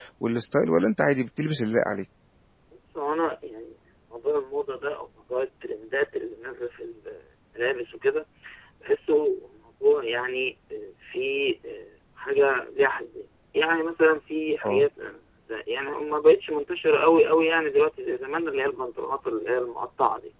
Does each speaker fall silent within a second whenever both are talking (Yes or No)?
Yes